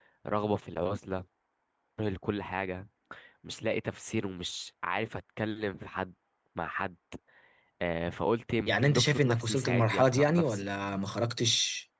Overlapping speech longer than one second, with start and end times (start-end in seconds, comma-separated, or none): 8.7-10.6